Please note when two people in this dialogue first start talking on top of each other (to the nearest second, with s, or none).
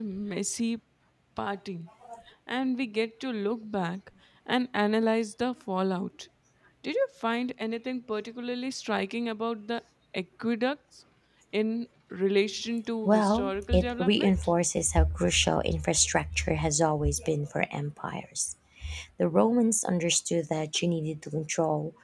13 s